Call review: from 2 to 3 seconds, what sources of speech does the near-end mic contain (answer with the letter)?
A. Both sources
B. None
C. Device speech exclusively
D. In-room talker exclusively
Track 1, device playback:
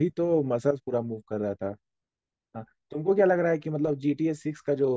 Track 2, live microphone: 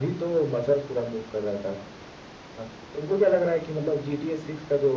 C